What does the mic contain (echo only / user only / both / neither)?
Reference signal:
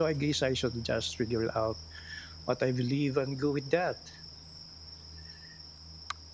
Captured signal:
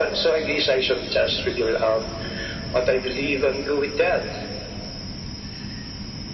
echo only